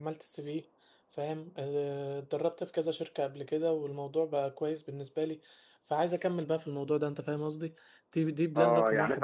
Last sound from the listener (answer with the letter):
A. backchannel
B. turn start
B